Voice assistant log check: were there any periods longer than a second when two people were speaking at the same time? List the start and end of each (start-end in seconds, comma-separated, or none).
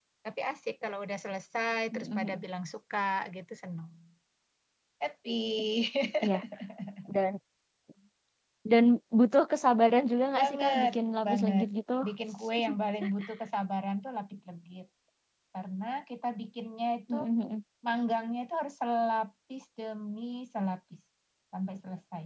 10.4-11.7